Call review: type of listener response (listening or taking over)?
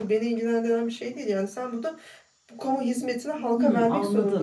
taking over